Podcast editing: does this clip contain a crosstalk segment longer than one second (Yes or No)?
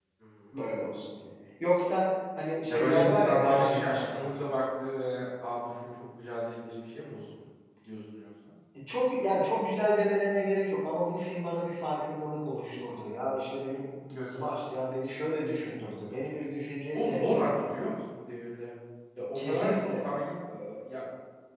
Yes